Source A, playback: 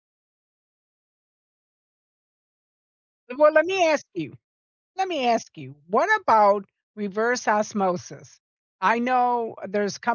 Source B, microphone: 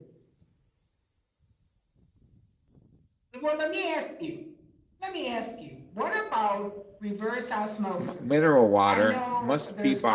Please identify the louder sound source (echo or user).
user